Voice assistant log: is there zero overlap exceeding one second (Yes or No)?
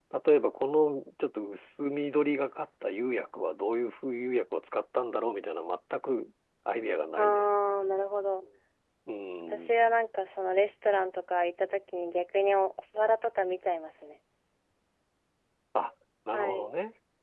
Yes